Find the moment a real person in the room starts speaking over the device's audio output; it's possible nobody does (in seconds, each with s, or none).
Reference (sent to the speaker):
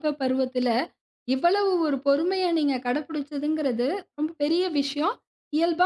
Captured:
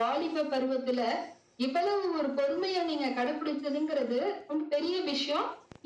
none